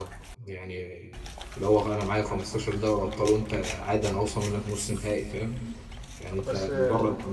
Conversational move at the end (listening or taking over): listening